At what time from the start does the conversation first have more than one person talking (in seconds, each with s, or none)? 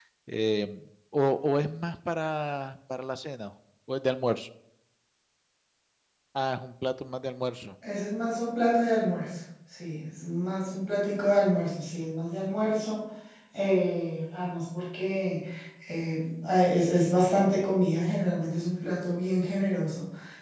none